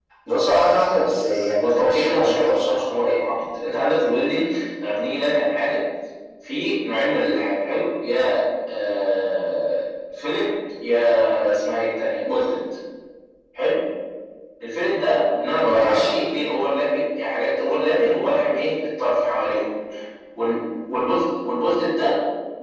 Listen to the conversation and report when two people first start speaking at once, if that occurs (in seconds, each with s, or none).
1.6 s